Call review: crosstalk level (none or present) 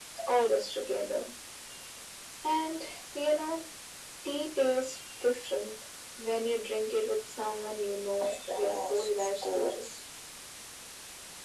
present